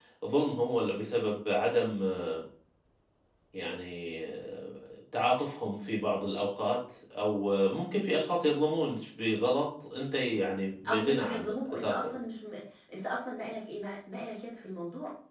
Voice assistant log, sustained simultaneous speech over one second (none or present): present